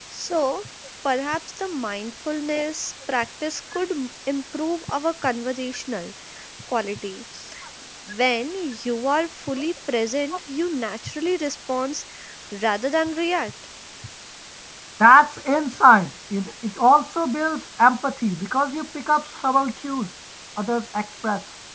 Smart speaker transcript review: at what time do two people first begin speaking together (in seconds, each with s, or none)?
none